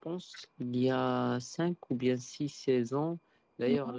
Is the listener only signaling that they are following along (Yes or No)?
Yes